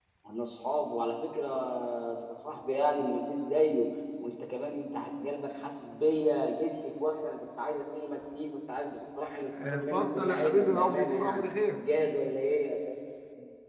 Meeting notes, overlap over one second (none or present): present